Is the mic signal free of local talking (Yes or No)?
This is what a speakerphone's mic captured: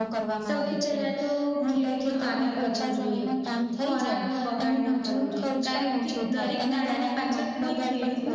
No